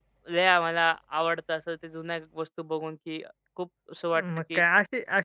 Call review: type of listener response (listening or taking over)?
taking over